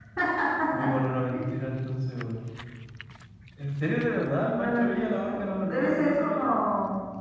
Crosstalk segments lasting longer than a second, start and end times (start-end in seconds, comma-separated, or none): 4.4-6.5